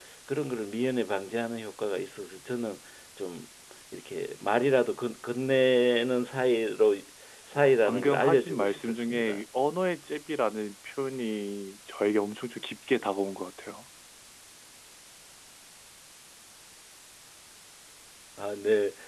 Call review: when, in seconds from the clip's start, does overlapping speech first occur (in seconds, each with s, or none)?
7.8 s